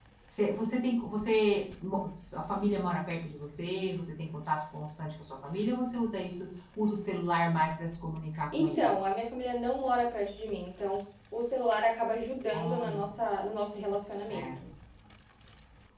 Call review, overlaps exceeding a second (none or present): none